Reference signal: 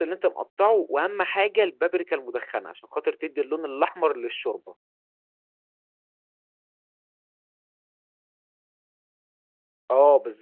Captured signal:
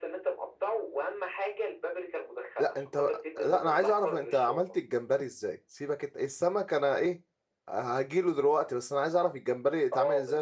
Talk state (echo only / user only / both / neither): both